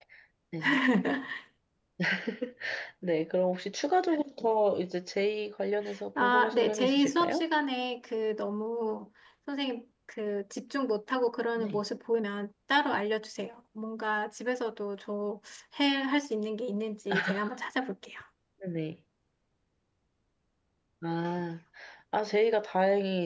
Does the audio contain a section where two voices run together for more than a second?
Yes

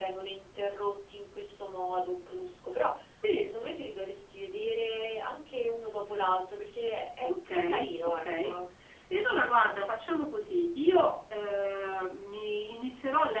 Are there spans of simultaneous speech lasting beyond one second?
Yes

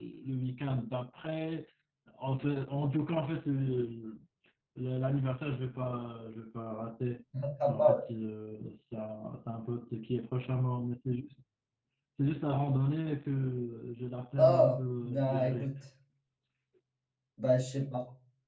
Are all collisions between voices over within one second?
No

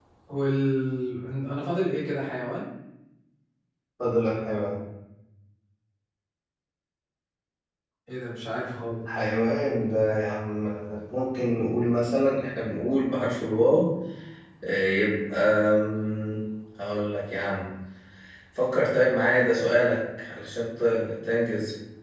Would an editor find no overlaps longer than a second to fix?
Yes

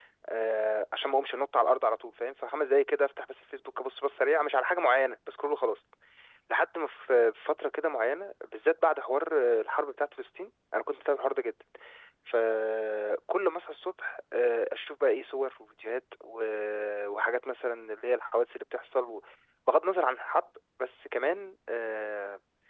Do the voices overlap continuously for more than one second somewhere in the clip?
No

